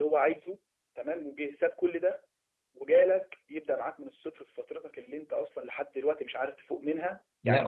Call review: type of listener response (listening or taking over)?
listening